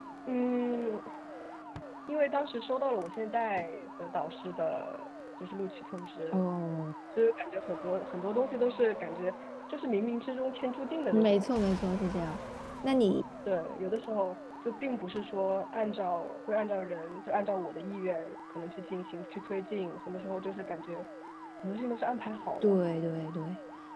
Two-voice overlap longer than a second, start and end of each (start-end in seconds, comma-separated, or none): none